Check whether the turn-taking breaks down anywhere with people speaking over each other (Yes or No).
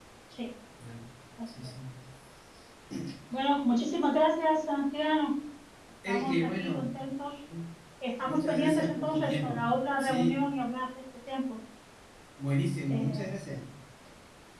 Yes